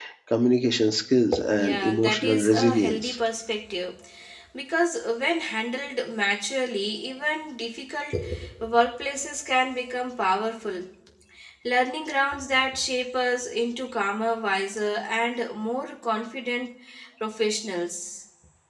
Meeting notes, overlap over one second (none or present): present